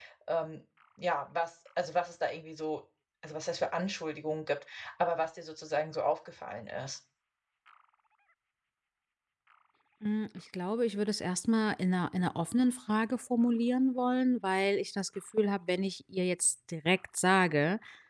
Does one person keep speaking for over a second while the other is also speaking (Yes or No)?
No